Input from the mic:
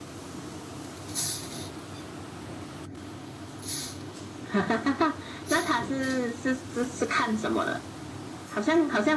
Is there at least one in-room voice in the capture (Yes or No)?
No